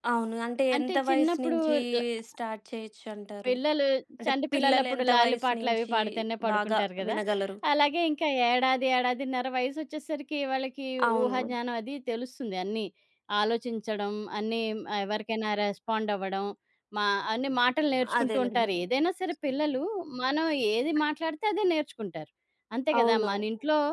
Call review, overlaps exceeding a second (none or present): present